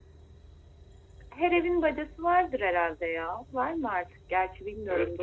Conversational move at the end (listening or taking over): taking over